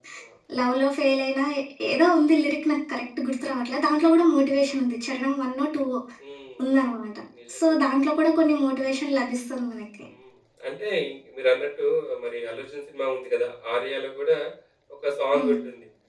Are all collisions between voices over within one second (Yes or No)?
Yes